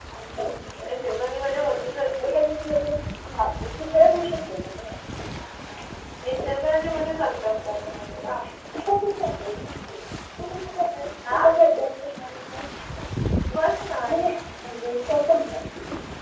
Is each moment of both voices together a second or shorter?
Yes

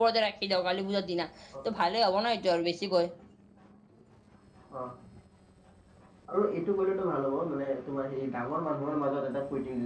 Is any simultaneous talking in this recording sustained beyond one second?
No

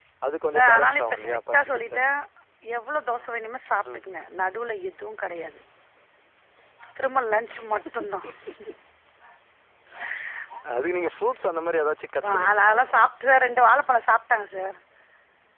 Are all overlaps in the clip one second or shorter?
No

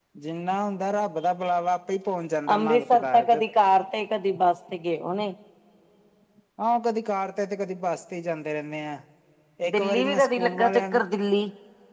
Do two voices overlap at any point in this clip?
Yes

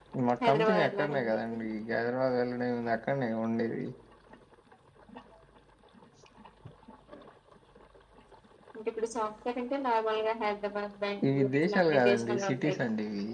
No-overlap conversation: No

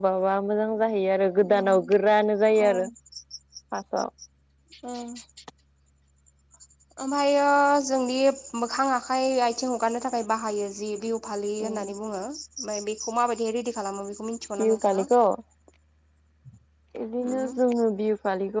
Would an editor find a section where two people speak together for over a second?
No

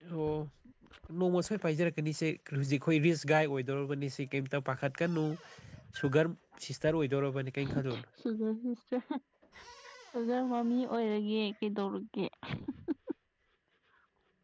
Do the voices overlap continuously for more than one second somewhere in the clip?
No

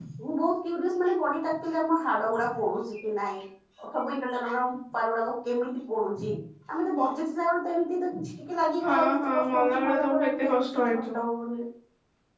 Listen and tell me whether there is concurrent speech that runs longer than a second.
Yes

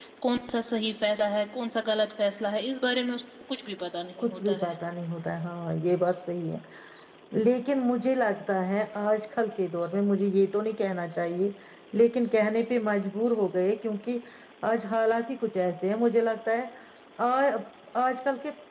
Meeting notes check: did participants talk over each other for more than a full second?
No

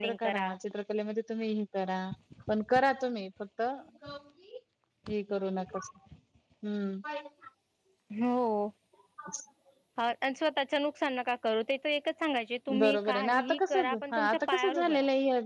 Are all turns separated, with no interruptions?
No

